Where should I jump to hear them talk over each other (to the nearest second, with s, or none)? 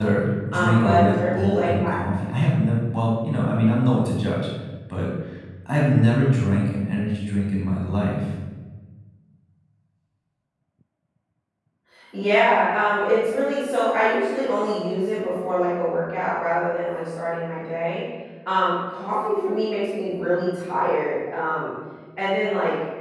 1 s